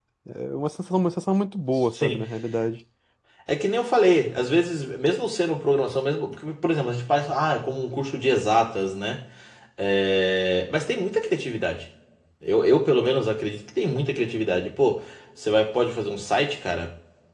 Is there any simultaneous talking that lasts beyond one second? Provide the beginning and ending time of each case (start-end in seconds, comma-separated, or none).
none